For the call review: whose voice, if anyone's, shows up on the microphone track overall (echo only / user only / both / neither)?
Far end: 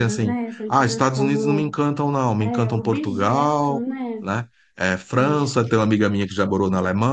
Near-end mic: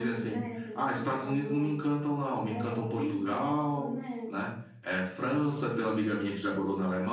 echo only